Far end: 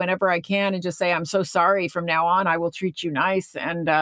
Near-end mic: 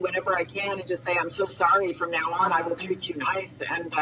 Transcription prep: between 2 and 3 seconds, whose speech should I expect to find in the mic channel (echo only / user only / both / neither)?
both